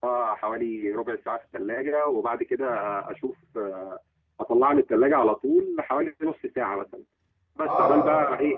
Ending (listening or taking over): listening